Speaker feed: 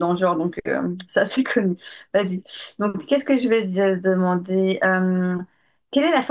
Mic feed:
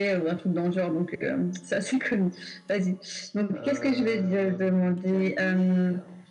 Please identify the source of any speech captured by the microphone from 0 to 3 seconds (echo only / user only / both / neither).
echo only